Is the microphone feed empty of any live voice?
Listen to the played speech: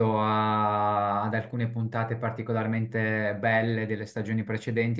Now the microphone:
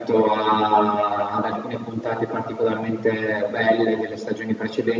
Yes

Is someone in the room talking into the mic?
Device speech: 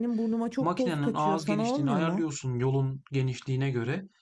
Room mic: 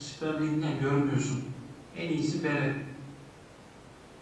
Yes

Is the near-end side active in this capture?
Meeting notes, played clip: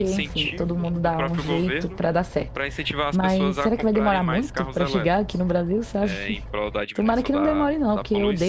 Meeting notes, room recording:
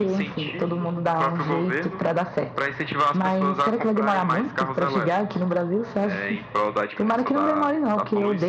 No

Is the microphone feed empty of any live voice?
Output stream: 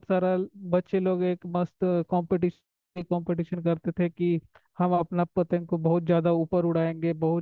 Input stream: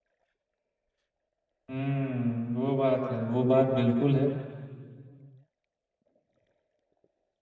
No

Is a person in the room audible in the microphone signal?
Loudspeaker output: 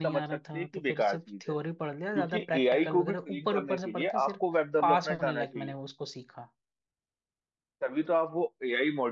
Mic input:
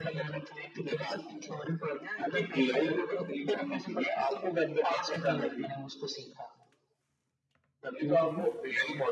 Yes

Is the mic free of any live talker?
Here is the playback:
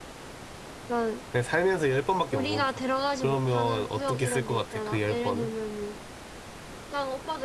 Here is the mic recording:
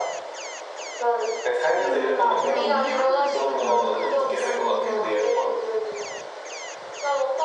No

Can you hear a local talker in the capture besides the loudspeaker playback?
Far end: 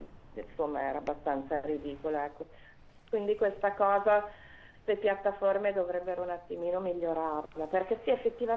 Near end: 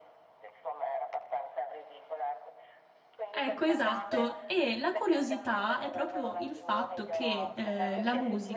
Yes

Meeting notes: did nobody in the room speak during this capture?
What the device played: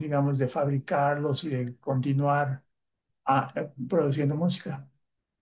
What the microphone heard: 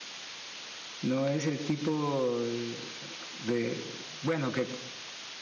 No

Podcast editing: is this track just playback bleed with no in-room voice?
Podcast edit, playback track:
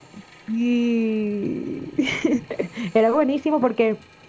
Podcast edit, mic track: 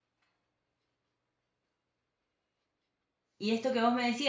No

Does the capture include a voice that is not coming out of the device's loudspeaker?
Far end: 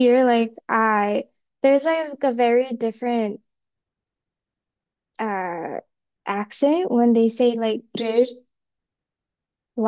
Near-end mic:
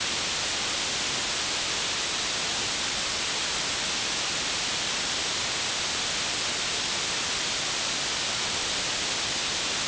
No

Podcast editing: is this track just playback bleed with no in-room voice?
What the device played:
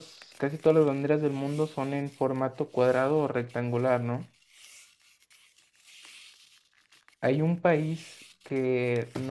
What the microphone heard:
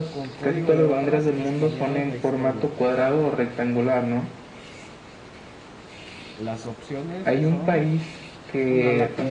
No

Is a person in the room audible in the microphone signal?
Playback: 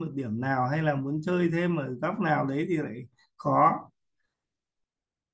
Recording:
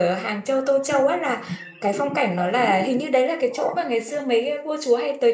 Yes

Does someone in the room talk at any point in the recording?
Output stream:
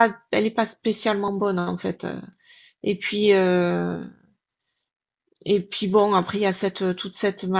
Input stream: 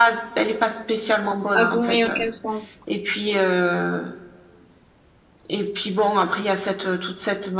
Yes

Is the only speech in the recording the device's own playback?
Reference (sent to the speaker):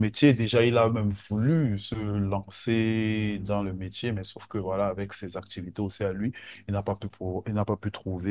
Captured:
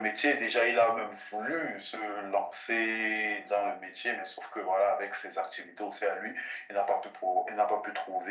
Yes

